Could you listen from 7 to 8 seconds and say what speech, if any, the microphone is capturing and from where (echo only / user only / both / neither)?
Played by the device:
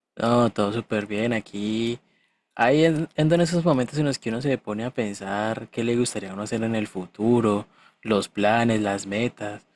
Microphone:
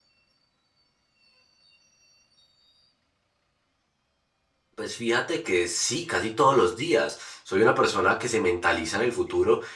user only